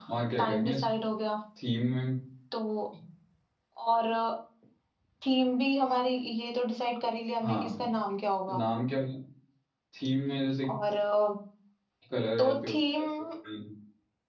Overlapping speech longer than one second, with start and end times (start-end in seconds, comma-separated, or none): none